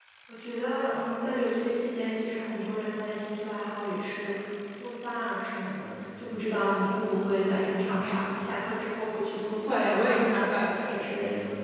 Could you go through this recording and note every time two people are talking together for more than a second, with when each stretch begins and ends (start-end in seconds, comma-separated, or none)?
9.7-11.1